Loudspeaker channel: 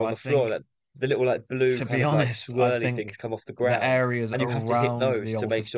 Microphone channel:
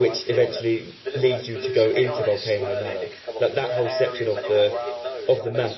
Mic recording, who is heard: both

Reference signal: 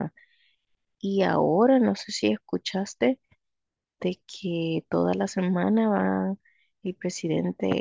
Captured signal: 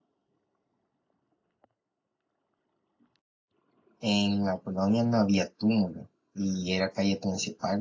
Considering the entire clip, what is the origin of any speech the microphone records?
user only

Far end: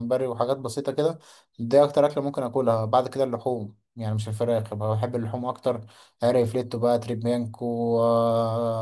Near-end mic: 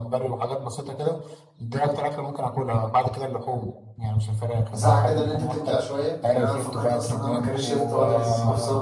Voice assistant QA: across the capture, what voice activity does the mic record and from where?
both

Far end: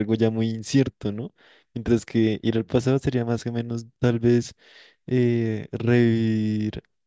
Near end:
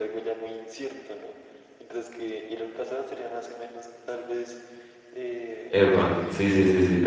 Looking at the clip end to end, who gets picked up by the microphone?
both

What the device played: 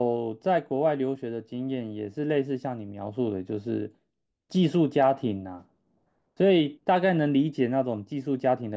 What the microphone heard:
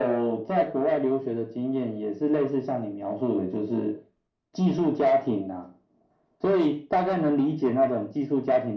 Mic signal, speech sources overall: echo only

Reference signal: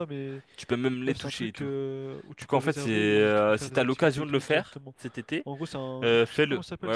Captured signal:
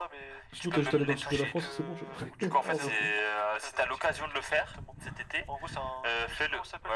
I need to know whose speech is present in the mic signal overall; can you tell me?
both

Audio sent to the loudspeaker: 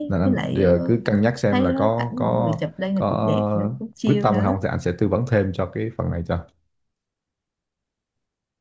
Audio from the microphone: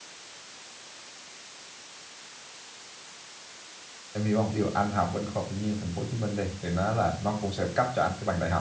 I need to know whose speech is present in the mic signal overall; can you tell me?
user only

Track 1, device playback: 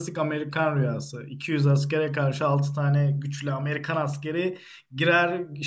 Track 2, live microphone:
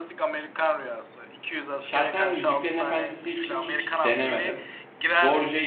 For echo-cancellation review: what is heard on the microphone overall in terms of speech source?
both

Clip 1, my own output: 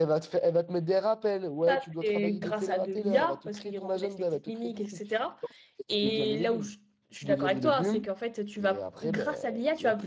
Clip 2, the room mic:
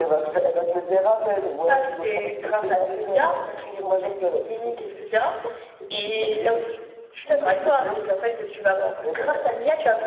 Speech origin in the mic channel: echo only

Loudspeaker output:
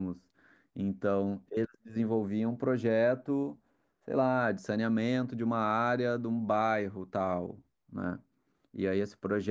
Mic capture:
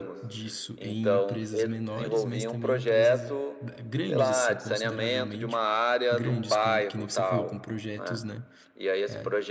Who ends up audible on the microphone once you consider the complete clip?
both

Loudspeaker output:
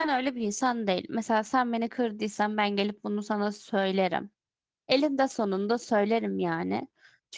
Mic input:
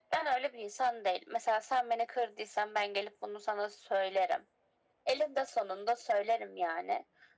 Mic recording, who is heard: echo only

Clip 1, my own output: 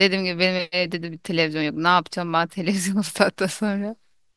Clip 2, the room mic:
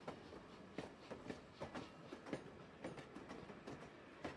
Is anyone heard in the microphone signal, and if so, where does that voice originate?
neither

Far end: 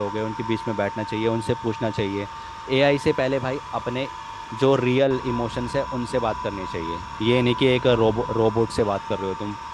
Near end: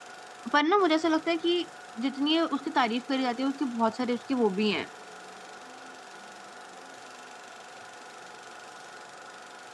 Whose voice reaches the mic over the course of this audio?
user only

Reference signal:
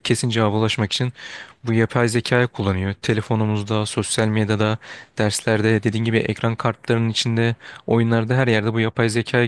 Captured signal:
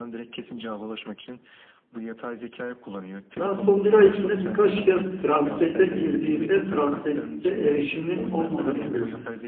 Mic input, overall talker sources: both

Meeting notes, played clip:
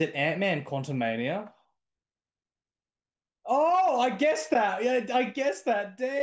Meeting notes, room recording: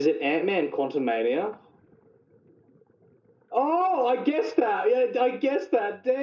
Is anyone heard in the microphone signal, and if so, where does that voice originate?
echo only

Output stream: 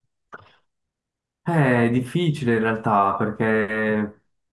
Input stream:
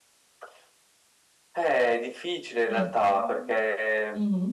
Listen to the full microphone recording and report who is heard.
both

